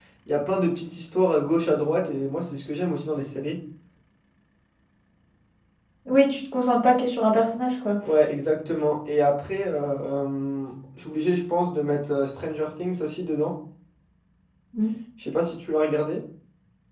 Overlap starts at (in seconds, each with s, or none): none